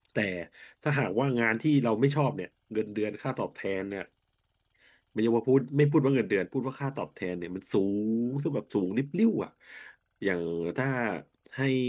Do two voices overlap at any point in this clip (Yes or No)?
No